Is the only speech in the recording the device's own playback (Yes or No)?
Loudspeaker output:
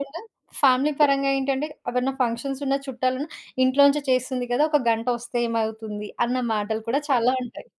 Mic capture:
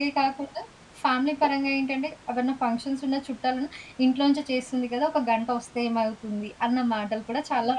Yes